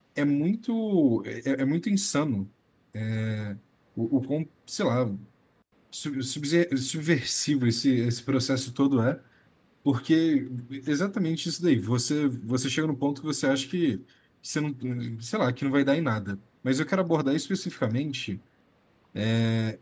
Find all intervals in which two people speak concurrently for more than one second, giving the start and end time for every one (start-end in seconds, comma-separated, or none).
none